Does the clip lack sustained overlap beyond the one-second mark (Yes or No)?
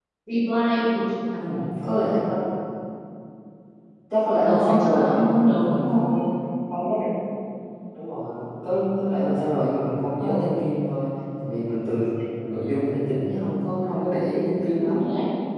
No